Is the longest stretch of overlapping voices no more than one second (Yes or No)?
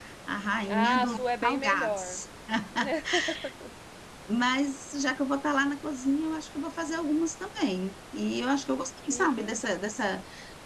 No